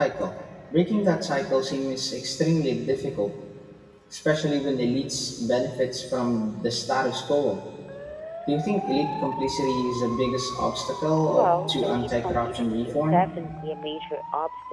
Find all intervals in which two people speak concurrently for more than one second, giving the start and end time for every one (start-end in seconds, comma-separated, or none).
11.3-13.3